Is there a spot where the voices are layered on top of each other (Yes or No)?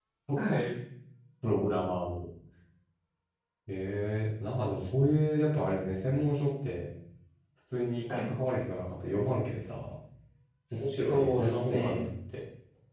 Yes